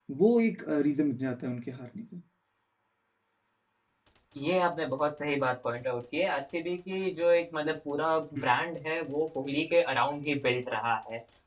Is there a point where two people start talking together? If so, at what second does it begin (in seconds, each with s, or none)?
none